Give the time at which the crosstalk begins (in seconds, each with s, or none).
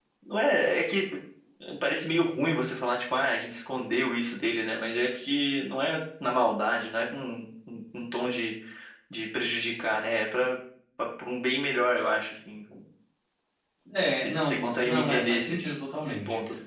14.1 s